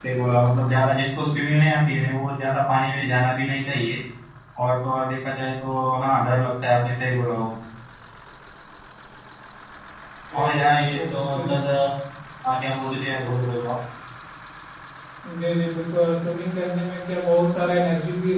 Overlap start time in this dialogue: 10.4 s

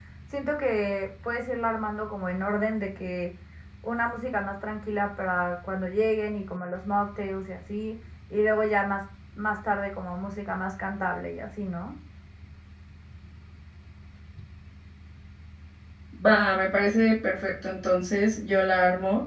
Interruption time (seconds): none

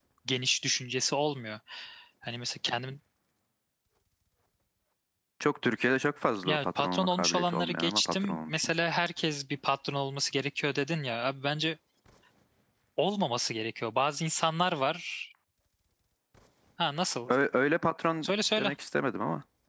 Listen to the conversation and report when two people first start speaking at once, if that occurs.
6.5 s

